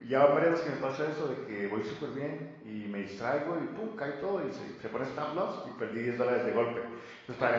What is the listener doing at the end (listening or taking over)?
listening